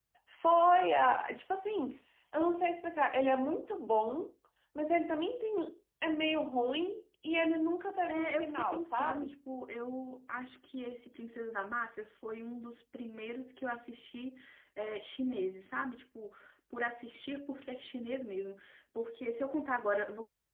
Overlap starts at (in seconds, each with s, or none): 8.1 s